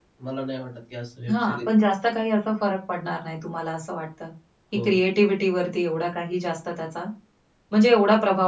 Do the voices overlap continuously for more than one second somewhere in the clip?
No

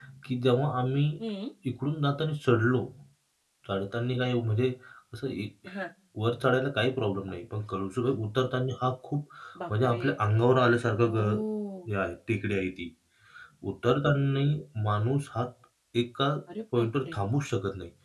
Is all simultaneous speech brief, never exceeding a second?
Yes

